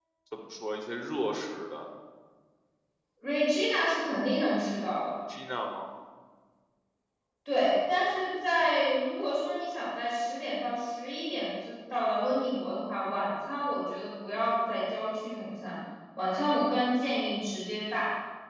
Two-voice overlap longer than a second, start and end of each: none

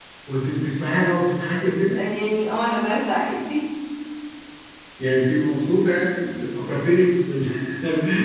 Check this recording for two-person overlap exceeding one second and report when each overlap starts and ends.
none

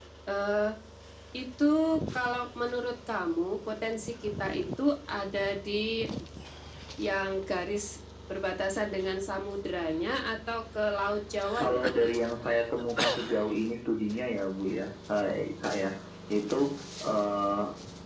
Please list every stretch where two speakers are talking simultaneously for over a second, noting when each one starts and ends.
none

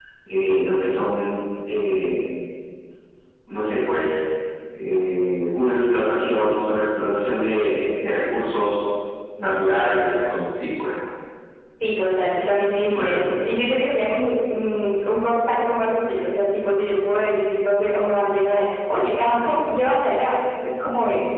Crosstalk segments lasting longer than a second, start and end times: none

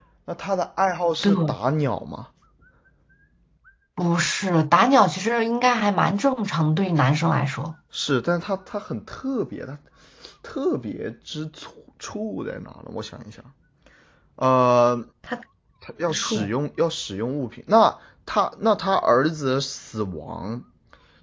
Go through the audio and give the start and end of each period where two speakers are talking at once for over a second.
none

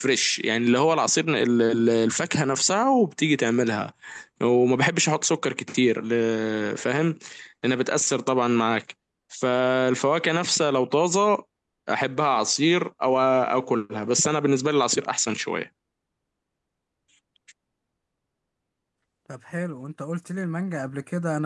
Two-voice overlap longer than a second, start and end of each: none

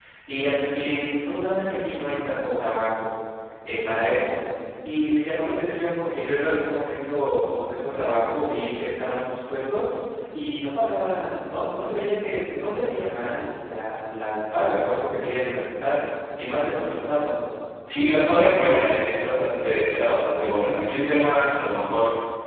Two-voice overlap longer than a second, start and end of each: none

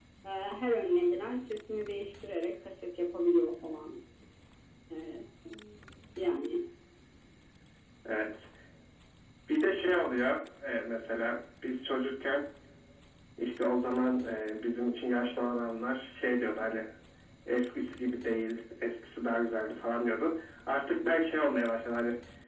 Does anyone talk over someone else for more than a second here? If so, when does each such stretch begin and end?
none

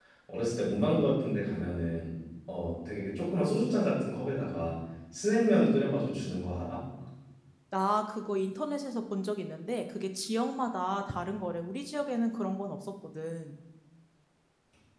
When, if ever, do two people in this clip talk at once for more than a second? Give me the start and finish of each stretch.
none

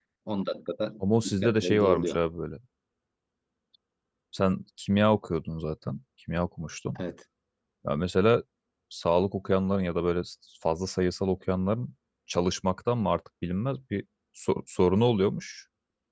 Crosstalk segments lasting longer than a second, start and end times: 1.0-2.2

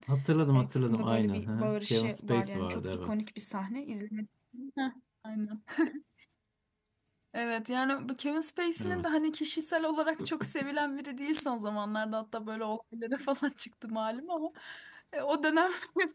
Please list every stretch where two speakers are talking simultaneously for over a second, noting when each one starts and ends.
0.5-3.1

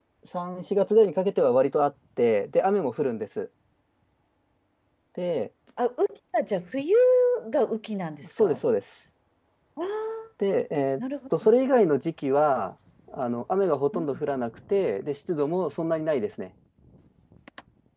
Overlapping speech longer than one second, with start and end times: none

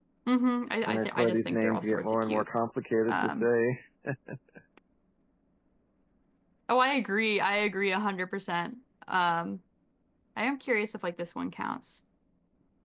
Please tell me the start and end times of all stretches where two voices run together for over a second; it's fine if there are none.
0.9-2.4

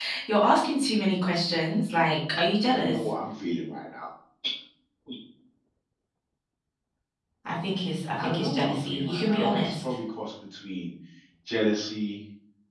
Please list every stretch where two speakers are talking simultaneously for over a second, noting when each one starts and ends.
8.2-9.8

